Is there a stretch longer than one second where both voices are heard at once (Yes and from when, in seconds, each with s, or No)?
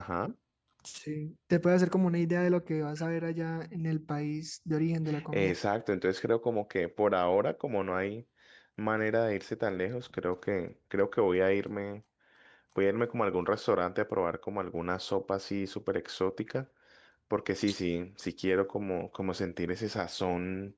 No